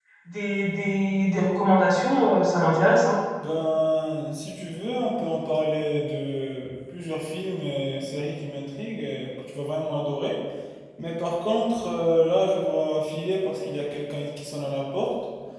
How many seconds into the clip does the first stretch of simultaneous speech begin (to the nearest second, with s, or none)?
none